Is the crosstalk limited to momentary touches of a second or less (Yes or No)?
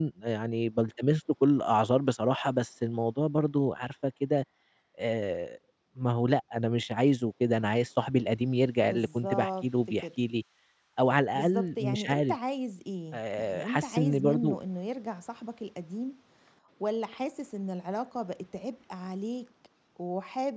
No